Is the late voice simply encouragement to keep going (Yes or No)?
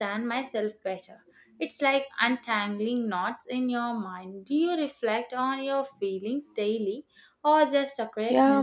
No